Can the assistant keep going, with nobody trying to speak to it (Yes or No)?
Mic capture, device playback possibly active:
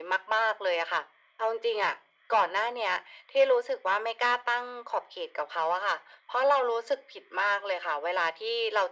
Yes